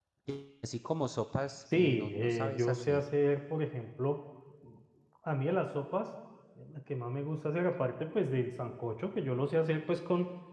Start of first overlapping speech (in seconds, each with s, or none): 1.7 s